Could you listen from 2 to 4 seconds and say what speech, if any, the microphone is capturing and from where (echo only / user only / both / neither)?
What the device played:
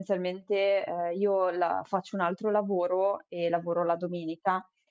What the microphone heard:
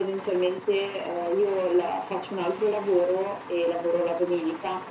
echo only